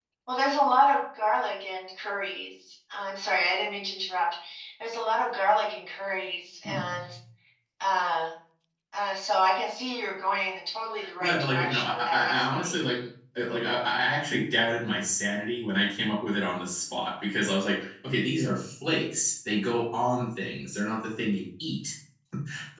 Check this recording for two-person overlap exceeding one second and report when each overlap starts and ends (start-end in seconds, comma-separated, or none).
11.2-12.9